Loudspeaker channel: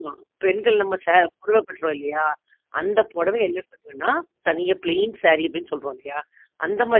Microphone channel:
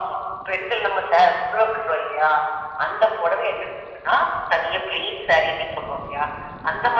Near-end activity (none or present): none